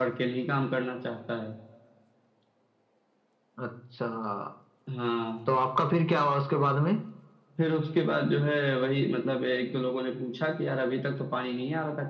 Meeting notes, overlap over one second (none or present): none